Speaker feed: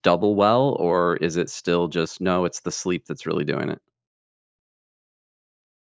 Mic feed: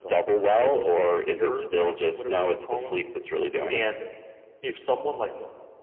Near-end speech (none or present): present